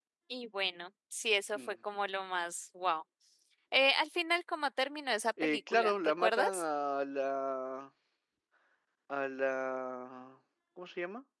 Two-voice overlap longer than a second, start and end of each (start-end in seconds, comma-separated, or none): 5.4-6.6